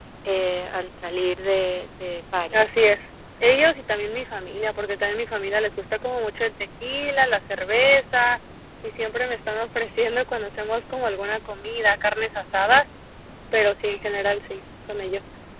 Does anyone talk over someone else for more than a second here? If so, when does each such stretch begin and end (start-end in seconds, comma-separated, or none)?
none